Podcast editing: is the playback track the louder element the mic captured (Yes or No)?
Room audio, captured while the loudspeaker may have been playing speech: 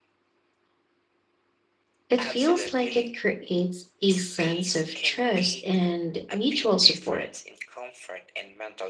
No